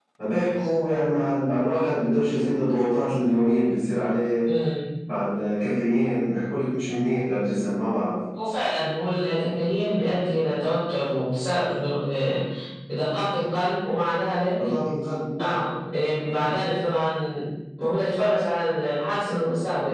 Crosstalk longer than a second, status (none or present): none